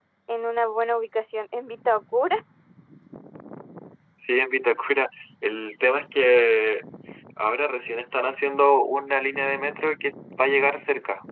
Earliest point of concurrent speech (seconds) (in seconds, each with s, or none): none